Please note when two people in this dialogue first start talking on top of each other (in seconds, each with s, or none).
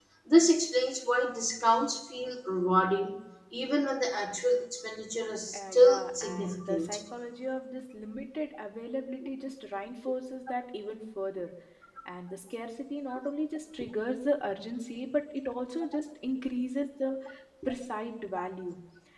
5.5 s